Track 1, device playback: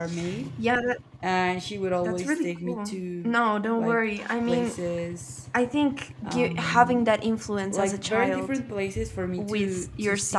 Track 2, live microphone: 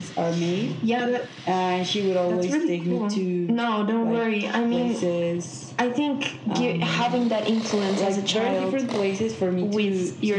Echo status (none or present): present